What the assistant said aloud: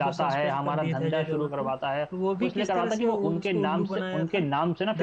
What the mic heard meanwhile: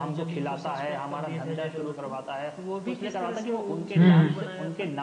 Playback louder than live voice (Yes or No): No